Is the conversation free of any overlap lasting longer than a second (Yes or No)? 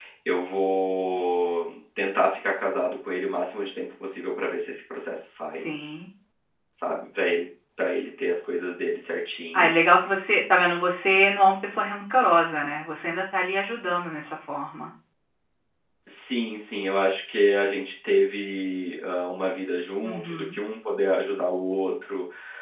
Yes